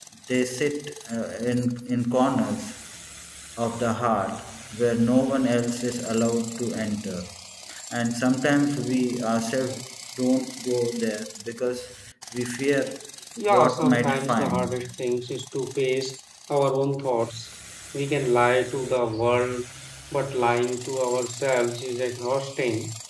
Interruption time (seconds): 13.5 s

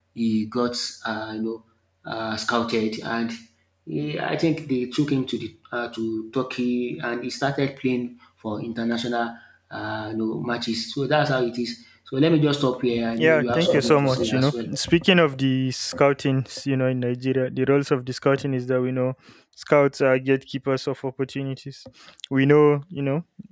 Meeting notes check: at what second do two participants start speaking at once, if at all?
13.2 s

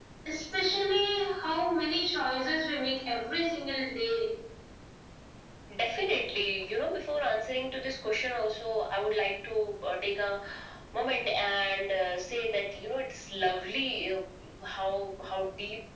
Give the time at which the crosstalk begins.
none

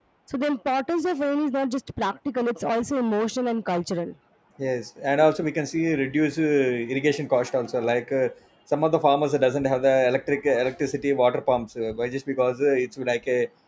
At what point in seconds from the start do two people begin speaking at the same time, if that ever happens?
none

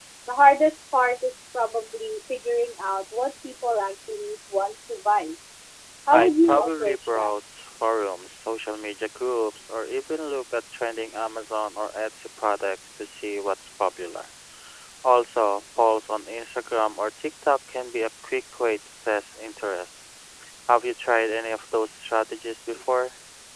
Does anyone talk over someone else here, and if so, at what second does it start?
6.1 s

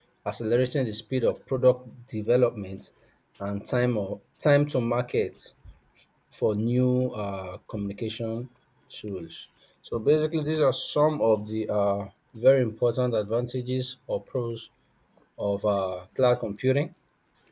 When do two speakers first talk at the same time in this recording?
none

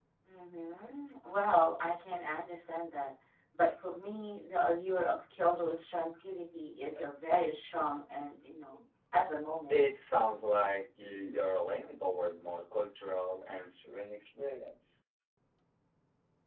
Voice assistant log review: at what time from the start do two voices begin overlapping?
none

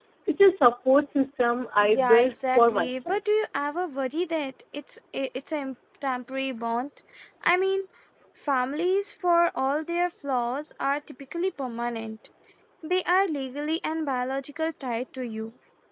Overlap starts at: 1.8 s

